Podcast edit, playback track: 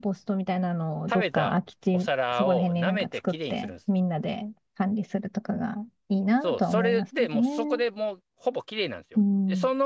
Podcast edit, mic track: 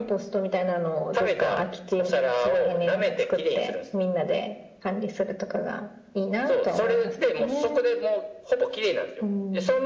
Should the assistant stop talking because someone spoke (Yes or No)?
No